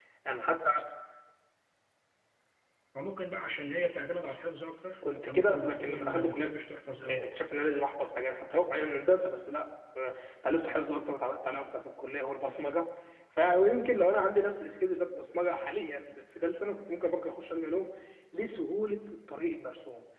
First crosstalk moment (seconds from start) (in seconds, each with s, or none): 5.0 s